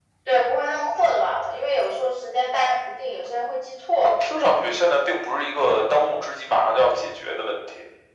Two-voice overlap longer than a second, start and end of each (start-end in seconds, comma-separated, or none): none